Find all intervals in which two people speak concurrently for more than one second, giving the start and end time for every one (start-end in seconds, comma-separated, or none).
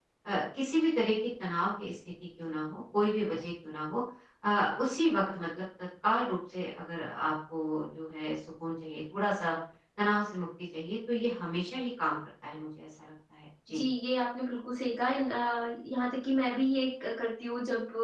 none